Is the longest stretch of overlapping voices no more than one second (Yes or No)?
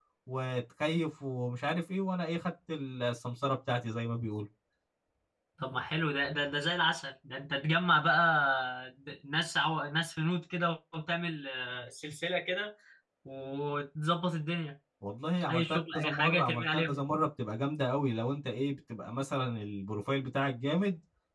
No